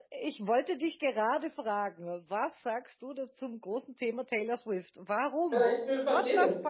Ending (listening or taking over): taking over